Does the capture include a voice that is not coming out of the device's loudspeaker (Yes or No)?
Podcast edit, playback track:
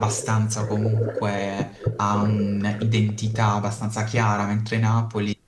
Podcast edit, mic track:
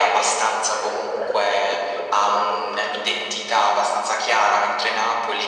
No